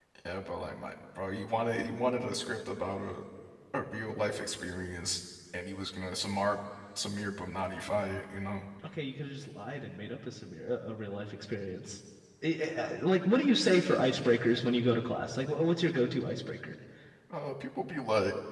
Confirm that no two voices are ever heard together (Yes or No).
Yes